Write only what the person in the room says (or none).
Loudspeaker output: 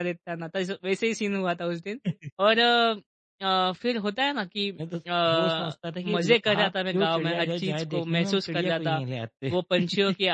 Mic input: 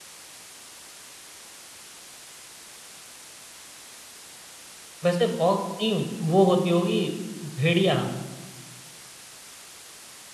वैसे फॉक्स नहीं, वो होती होगी भेड़िया,